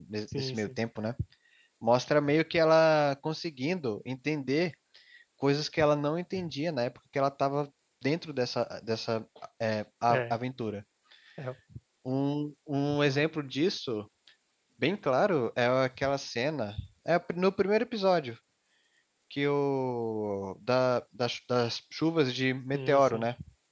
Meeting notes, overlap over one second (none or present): none